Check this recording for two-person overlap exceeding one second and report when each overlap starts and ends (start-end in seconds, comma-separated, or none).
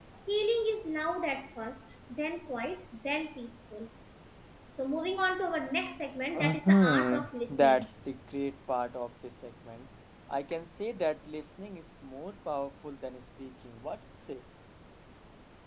6.4-7.9